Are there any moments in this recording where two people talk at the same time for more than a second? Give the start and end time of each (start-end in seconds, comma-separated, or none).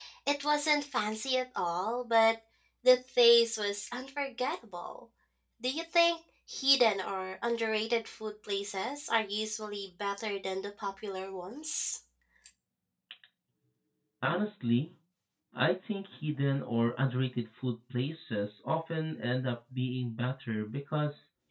none